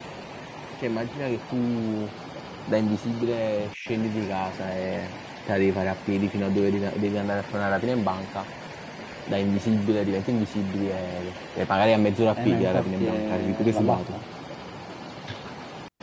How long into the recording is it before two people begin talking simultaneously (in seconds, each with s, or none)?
12.4 s